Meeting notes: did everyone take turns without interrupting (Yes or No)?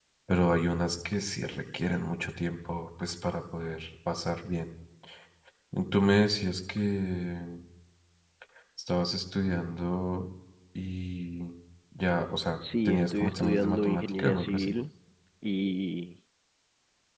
No